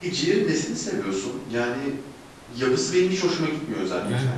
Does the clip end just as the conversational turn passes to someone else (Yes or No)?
Yes